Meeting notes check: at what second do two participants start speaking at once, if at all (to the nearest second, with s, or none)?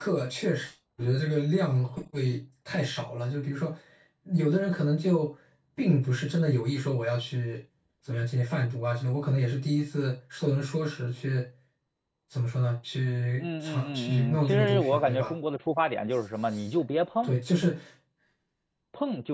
13 s